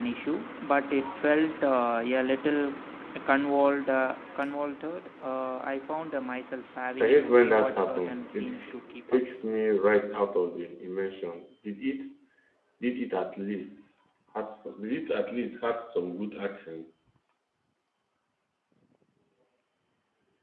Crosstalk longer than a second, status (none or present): present